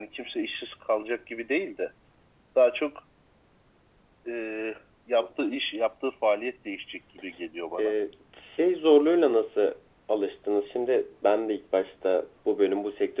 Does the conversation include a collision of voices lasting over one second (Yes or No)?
No